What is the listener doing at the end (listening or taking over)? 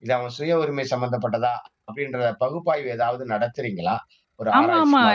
taking over